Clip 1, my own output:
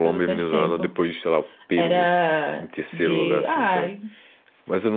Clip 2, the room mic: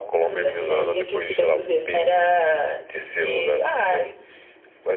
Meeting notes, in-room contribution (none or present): present